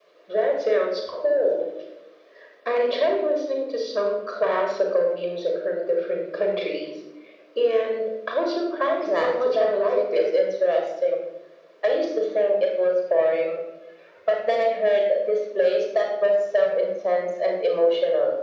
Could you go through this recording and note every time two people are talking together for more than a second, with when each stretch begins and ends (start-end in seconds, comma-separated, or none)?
9.0-10.3